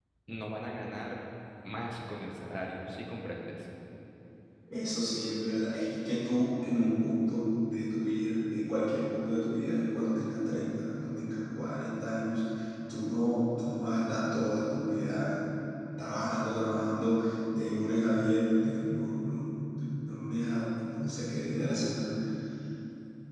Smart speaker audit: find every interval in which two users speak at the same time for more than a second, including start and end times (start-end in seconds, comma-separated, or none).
none